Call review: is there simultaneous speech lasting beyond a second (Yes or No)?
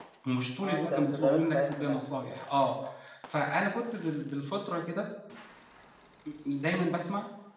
Yes